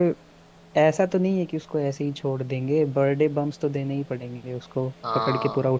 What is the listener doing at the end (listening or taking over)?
taking over